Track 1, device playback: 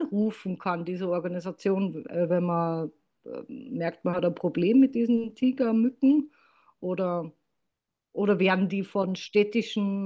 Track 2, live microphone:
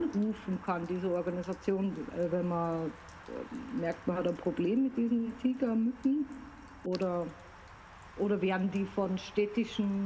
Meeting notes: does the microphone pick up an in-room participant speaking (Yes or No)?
No